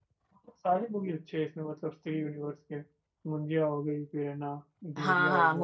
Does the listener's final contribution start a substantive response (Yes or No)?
Yes